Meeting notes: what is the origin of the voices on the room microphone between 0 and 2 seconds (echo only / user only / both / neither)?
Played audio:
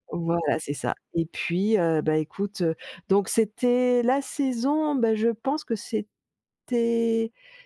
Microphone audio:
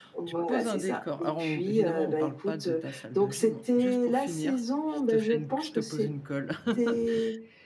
both